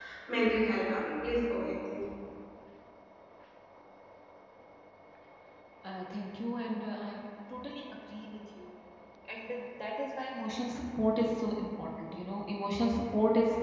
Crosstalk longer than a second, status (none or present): none